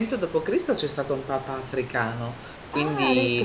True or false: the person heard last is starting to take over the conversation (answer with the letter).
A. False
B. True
A